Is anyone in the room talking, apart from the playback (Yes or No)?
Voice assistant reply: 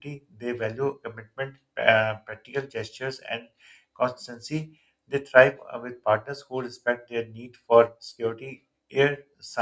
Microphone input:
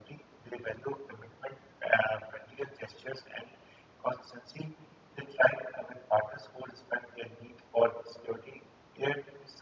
No